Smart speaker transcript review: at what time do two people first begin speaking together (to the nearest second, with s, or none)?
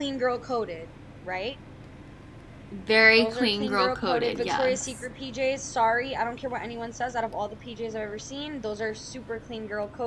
3 s